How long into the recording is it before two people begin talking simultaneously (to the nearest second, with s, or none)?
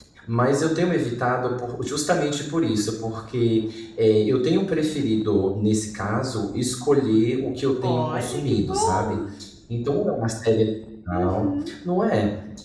8 s